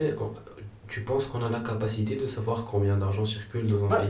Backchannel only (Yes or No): No